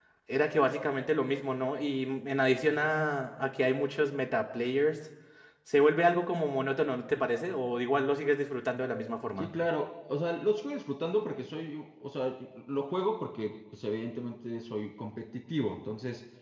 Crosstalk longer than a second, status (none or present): none